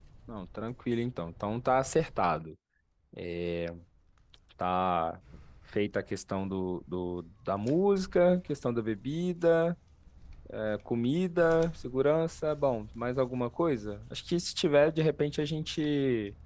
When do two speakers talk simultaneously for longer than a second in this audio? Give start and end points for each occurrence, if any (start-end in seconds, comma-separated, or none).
none